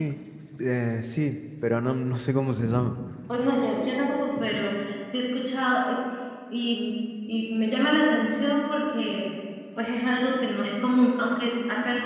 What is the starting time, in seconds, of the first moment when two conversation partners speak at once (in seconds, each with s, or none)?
none